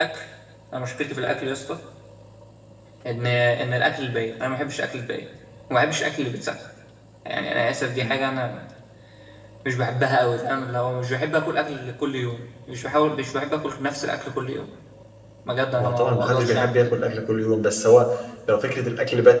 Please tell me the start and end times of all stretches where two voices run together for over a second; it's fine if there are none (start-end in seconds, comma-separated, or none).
15.8-17.0